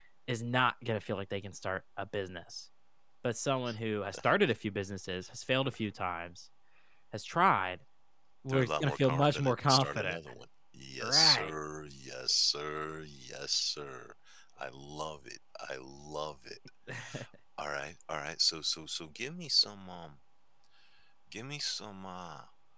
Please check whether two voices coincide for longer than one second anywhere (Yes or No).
Yes